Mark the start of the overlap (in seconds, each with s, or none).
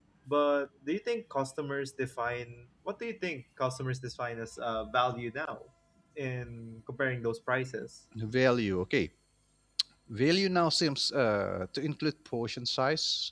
none